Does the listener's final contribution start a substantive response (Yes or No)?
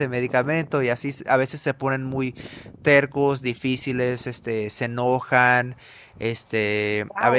Yes